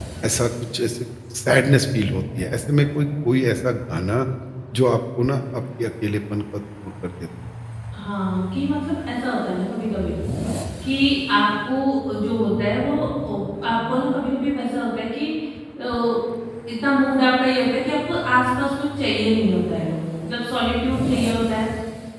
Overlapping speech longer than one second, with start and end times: none

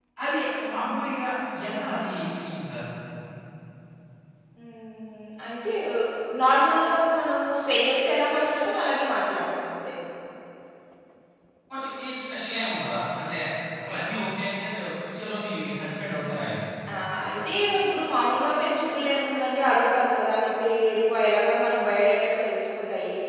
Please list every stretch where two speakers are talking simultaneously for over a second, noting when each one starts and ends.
none

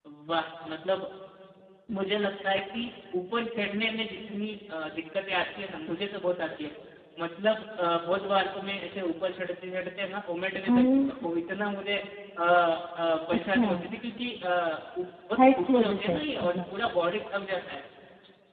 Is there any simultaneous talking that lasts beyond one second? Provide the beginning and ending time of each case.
15.4-16.6

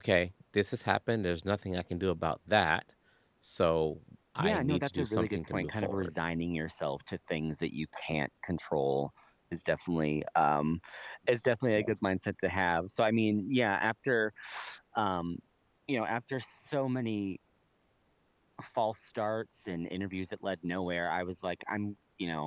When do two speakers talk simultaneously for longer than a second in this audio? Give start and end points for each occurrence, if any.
4.4-6.1

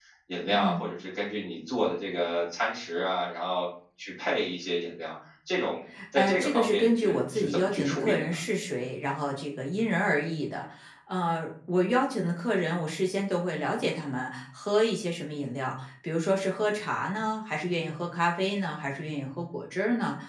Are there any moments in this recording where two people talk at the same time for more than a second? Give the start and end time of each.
6.2-8.3

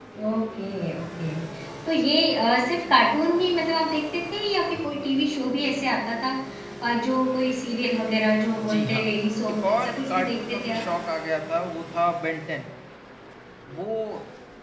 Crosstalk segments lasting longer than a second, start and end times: 9.5-10.8

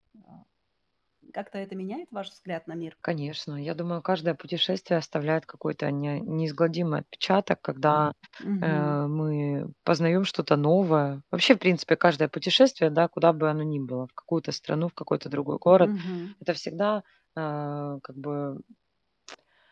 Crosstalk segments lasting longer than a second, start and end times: none

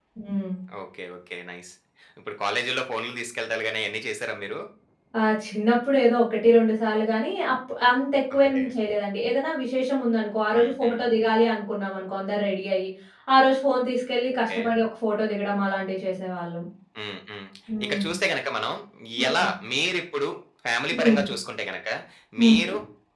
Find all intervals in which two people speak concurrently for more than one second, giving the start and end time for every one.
none

